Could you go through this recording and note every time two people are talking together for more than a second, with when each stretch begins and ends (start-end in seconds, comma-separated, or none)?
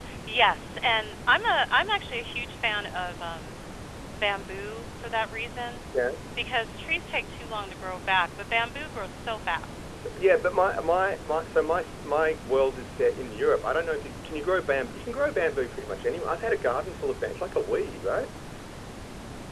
none